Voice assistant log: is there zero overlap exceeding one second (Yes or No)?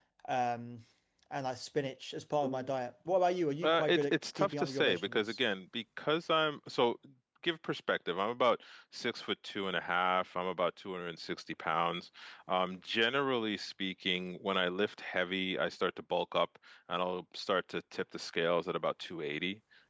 No